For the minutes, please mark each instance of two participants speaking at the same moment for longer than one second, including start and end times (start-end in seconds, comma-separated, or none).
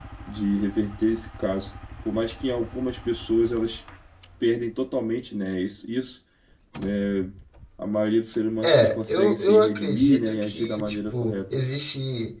8.6-11.5